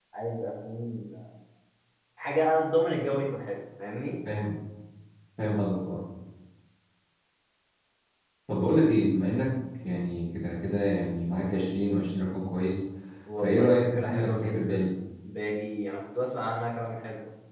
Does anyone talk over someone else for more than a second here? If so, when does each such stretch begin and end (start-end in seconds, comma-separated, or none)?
13.4-14.9